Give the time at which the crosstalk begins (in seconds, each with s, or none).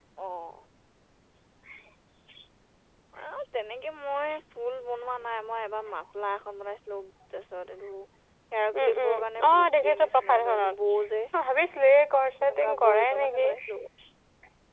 8.8 s